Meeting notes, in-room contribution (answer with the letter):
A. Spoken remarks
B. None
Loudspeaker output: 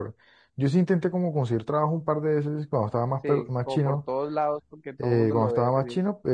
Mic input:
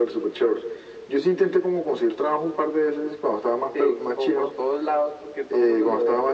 B